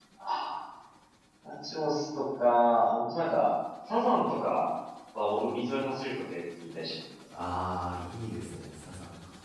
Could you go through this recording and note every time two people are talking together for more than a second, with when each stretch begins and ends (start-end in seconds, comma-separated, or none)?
none